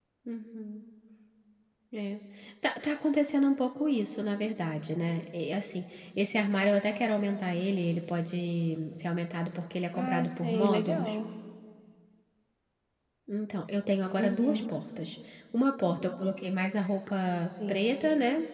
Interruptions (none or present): present